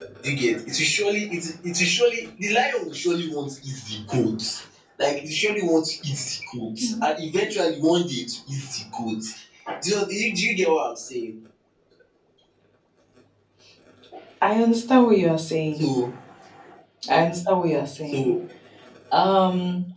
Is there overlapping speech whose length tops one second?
No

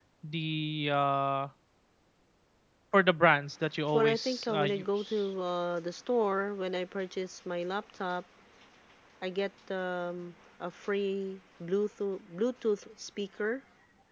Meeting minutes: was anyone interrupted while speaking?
Yes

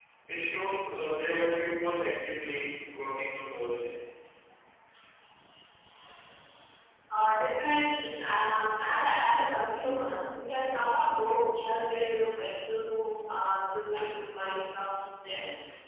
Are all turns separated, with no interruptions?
Yes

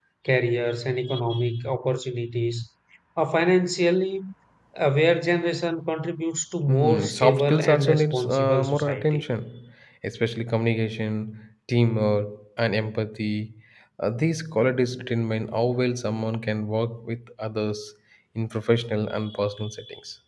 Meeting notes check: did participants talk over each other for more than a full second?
Yes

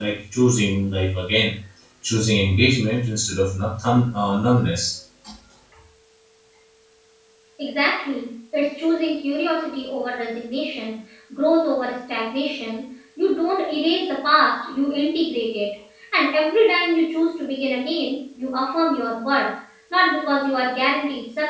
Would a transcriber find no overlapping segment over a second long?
Yes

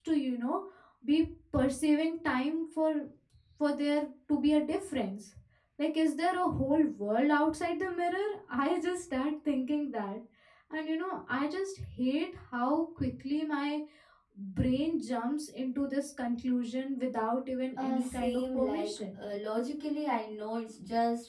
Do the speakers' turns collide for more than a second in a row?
Yes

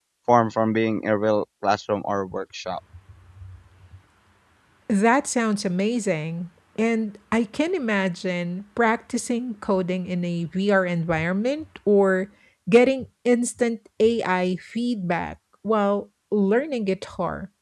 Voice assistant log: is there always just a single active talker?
Yes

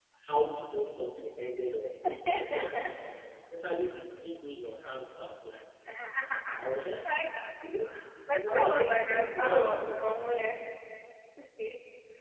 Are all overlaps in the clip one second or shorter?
No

